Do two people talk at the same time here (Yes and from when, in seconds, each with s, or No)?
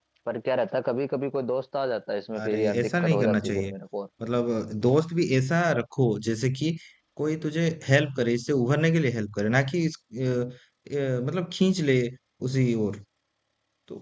Yes, from 2.3 s